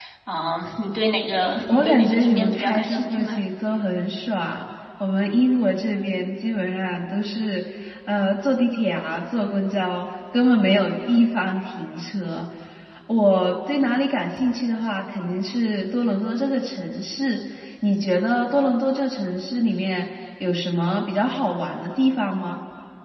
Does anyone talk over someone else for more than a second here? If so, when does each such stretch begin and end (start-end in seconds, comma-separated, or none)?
1.7-3.4